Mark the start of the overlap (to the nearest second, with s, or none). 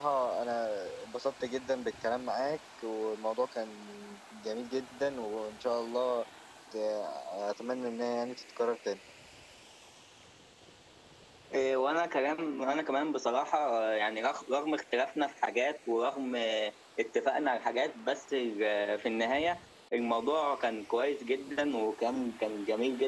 none